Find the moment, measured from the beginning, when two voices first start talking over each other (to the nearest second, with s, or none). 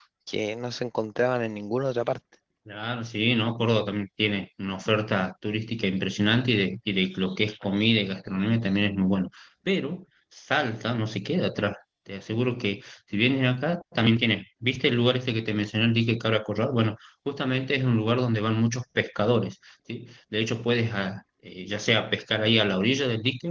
none